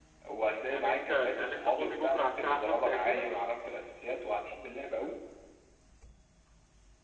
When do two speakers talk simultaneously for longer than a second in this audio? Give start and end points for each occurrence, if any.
0.7-3.3

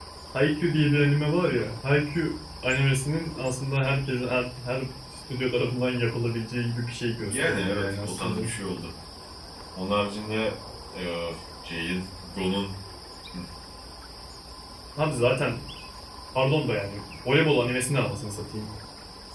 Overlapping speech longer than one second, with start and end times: 7.2-8.5

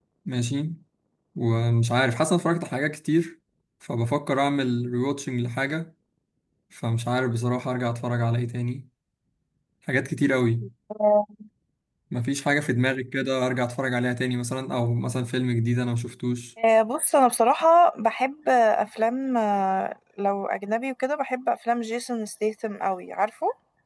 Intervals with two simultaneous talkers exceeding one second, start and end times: none

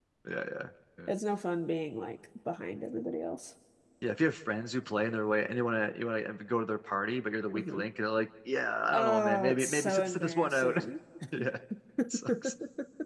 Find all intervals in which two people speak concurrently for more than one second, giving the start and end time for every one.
8.9-10.8

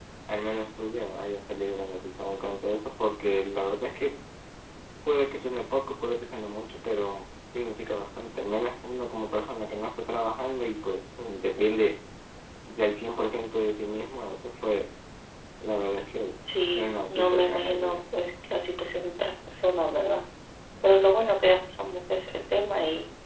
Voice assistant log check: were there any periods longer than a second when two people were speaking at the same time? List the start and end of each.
16.7-18.0

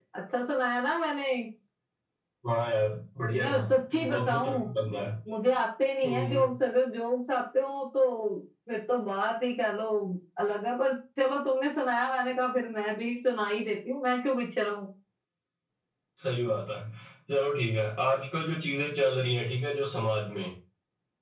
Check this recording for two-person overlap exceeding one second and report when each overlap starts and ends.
3.3-4.7

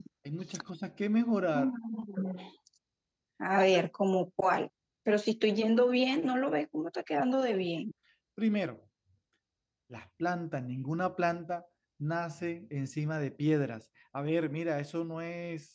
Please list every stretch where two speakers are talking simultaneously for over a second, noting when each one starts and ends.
none

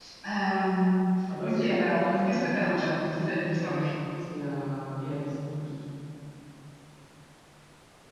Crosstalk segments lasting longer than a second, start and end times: 1.4-3.8

